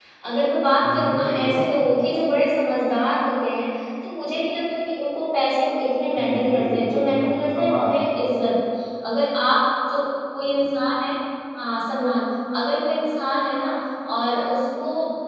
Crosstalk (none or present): present